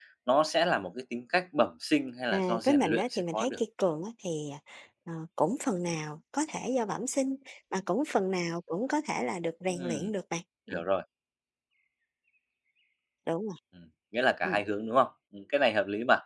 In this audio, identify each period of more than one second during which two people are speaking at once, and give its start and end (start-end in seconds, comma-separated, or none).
2.3-3.6